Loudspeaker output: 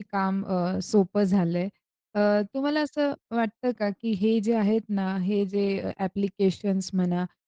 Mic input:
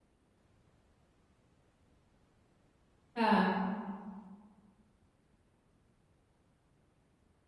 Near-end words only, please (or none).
हां.